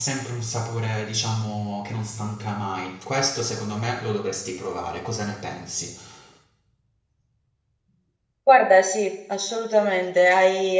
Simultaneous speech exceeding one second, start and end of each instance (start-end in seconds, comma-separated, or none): none